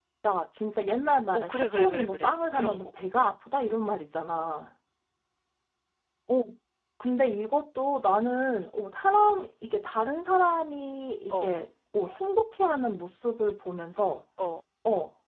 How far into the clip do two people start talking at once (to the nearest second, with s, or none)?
1 s